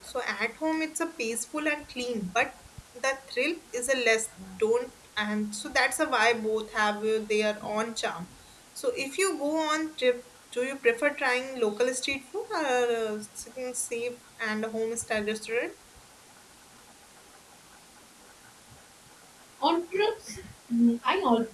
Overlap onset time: none

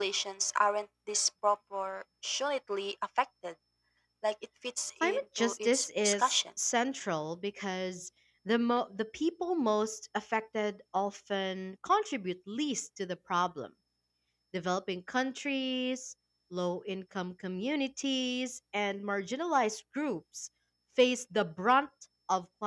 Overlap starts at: 5.0 s

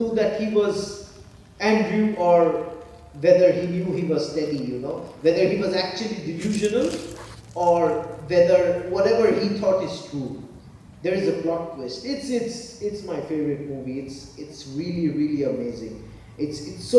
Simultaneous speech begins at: none

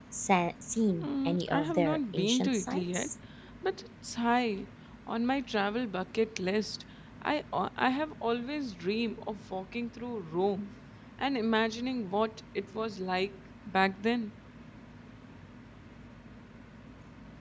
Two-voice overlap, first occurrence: 0.9 s

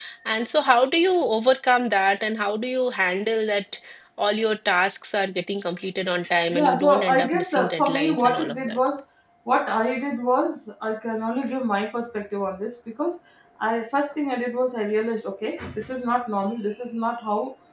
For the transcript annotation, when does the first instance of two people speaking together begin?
6.5 s

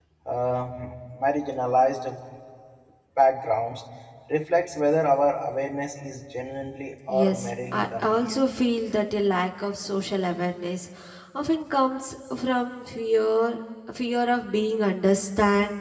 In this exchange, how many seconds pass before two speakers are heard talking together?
7.1 s

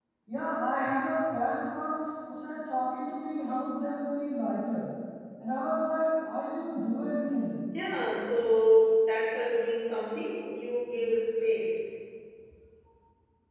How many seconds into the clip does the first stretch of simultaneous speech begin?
none

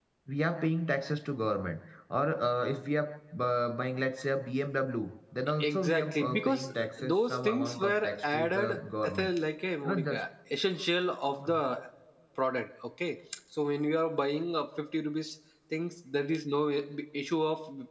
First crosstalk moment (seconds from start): 5.6 s

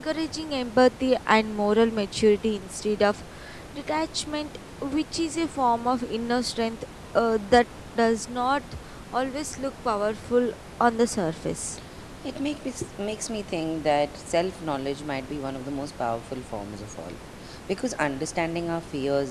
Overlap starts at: none

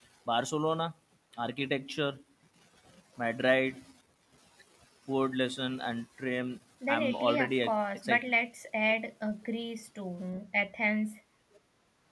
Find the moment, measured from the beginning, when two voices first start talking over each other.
6.8 s

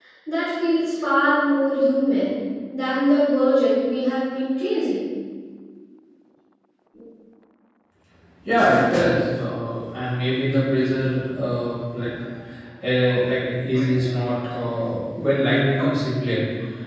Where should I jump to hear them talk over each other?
none

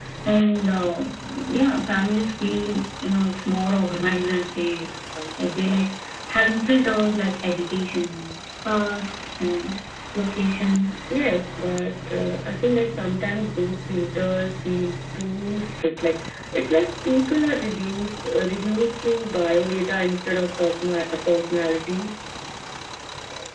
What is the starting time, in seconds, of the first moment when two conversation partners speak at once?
none

